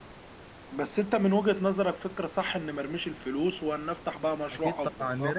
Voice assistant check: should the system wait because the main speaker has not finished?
No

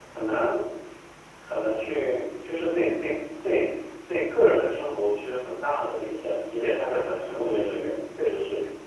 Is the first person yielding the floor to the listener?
Yes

